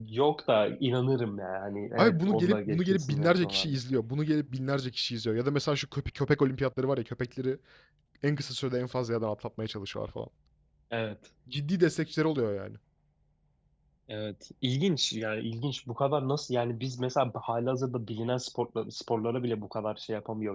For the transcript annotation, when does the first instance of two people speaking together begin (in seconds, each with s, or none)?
2.0 s